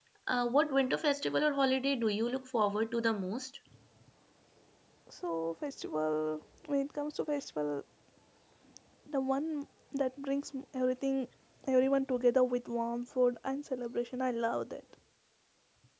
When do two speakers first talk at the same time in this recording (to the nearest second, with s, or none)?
none